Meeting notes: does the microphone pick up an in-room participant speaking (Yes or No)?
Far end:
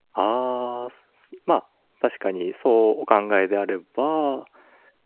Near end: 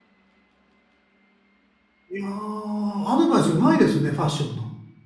Yes